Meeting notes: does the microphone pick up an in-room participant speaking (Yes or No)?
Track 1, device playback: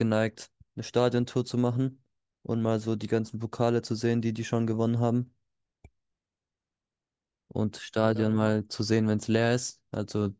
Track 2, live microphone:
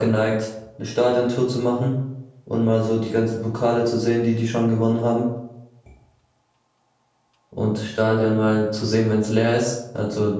No